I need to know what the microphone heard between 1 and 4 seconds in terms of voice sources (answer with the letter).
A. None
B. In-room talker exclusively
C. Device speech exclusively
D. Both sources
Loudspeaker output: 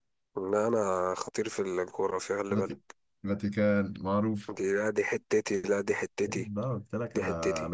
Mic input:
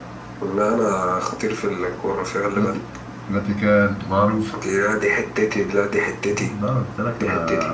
C